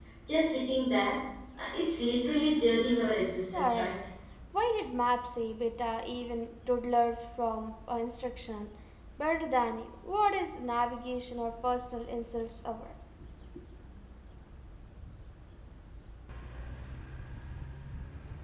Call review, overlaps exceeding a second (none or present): none